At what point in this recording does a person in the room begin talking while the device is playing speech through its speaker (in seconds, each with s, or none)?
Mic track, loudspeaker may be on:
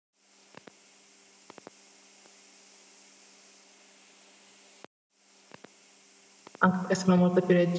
6.6 s